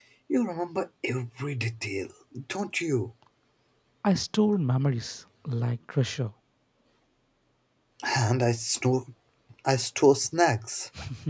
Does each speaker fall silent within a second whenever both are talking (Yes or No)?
Yes